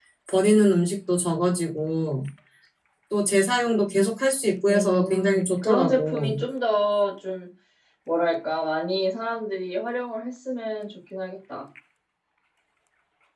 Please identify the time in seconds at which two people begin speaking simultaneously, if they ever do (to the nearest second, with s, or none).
5 s